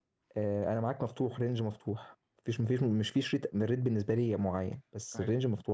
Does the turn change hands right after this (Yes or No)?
No